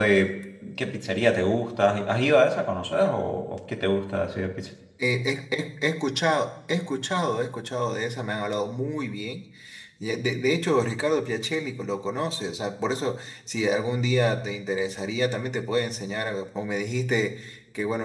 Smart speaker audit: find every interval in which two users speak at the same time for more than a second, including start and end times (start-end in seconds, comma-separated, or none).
none